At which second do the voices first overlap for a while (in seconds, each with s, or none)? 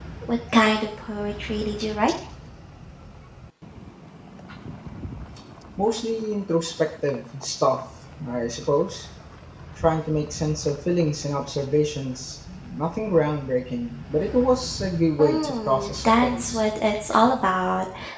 15.2 s